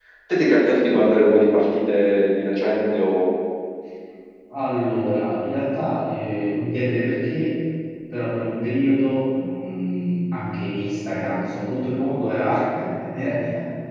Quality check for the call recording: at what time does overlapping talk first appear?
none

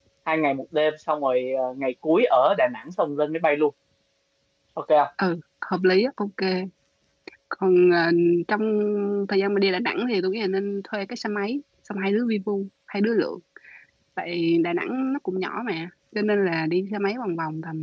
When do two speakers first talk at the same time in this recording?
none

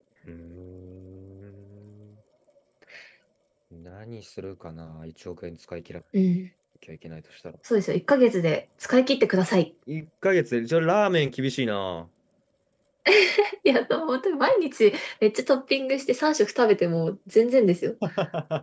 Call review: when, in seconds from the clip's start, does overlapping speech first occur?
none

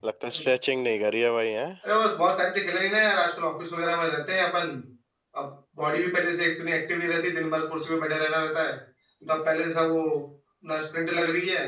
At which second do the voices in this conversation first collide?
none

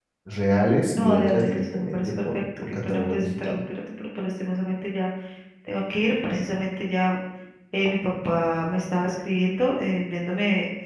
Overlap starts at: 1 s

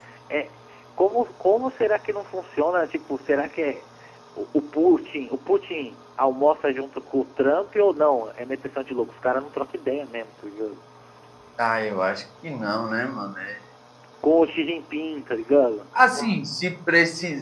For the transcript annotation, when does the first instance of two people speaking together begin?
none

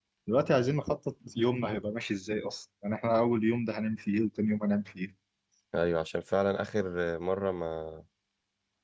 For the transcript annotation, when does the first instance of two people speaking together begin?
none

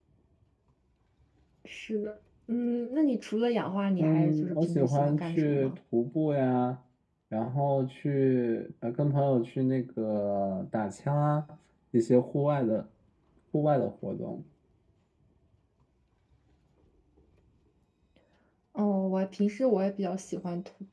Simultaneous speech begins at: 4 s

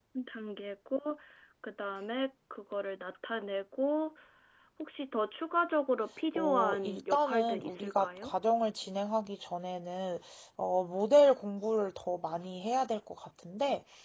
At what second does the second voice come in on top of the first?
6 s

